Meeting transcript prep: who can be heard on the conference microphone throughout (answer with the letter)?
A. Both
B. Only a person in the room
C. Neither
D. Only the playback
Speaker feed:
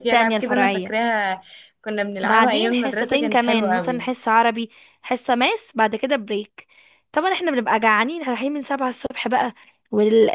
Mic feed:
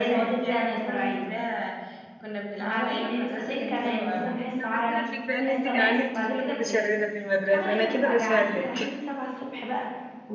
A